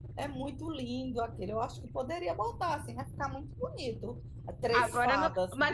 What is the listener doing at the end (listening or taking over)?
taking over